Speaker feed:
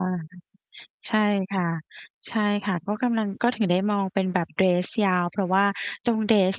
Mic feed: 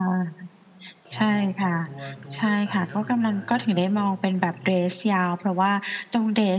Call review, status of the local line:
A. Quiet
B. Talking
B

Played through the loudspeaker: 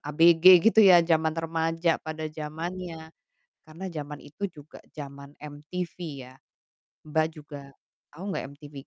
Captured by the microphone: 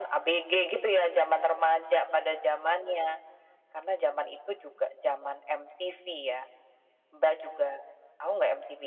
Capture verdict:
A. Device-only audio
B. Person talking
A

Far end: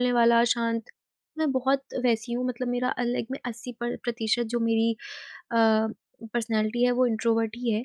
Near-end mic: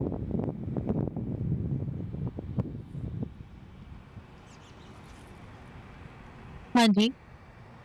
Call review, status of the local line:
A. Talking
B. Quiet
A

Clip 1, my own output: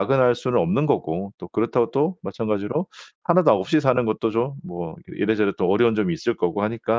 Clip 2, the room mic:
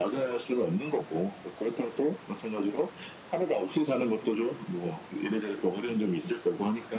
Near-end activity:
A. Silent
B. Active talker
A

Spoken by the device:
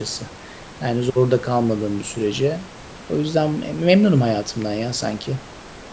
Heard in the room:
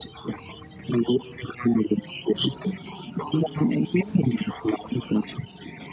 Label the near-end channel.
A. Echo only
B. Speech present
A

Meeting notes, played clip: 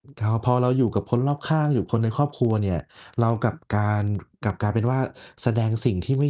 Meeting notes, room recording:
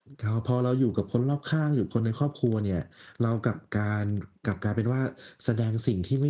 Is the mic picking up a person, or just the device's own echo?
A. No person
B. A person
A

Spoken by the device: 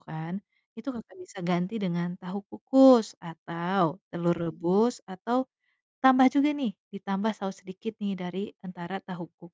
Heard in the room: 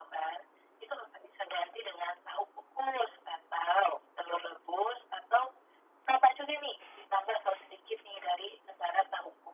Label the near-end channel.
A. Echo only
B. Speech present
A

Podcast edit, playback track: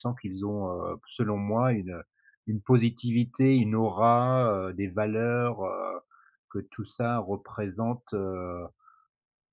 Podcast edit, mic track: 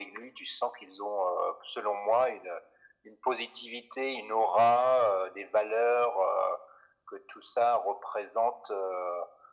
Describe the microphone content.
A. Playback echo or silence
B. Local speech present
A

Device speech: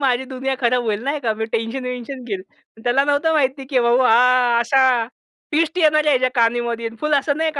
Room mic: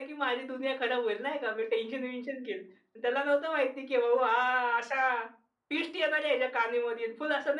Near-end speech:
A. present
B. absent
B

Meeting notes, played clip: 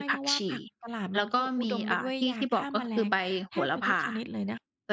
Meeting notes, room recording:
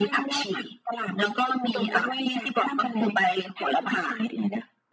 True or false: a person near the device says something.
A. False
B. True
A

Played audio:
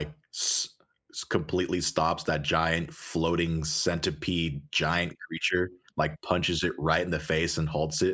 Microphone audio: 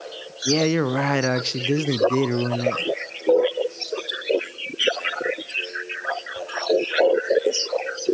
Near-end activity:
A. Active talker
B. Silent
A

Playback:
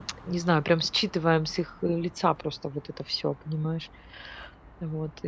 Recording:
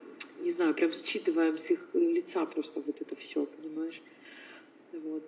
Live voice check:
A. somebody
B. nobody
B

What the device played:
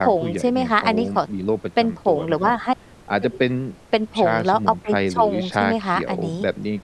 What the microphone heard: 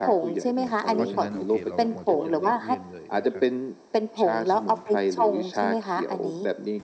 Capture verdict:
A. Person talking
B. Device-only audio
A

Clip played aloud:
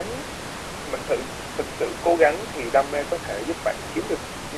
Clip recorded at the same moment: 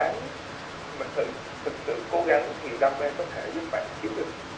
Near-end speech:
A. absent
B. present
A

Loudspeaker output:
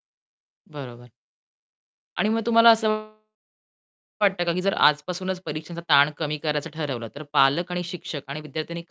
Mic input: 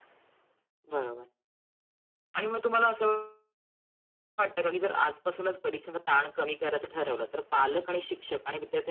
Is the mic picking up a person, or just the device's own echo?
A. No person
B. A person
A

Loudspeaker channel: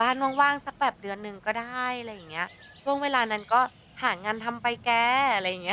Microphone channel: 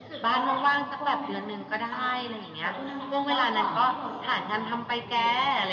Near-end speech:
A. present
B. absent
A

